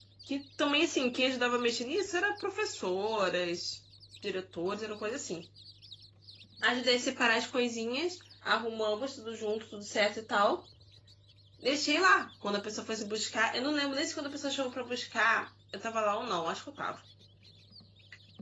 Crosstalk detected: No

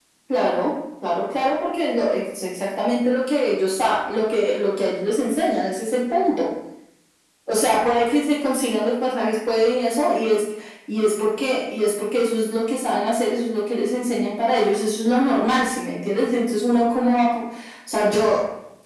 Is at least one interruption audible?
No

